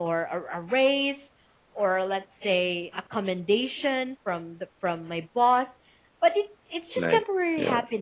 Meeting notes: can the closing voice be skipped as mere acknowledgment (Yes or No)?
Yes